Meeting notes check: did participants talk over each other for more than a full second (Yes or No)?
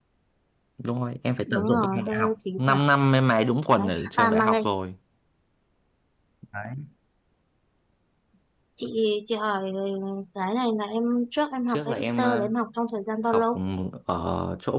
Yes